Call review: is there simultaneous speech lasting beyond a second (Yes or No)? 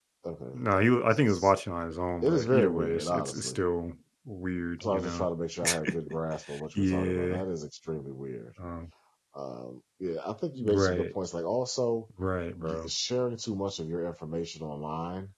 Yes